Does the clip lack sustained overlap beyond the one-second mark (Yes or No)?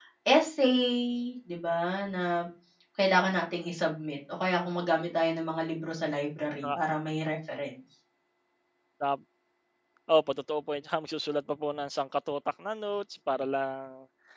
Yes